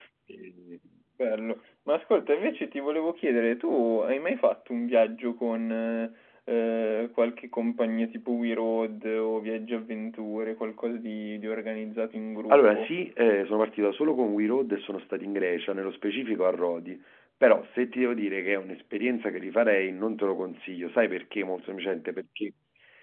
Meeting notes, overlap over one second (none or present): none